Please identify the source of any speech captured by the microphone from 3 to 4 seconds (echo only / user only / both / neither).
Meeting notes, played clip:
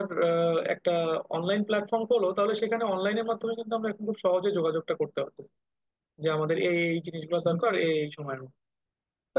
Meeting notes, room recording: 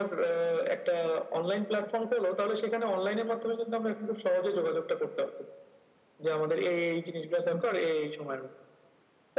echo only